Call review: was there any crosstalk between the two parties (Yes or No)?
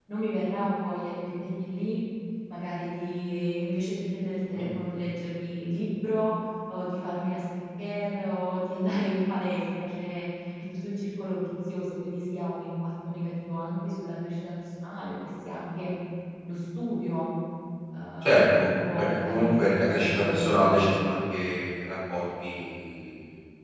Yes